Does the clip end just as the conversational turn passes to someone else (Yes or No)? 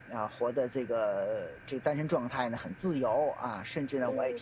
Yes